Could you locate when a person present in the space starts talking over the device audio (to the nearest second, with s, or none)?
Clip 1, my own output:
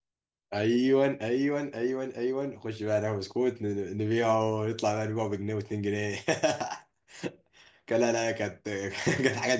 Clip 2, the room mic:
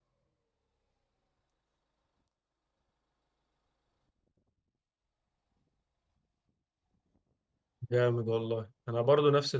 8 s